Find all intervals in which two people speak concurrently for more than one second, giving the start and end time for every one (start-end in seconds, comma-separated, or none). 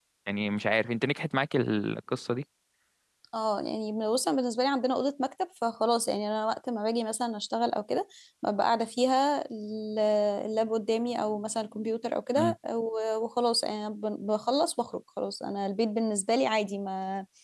none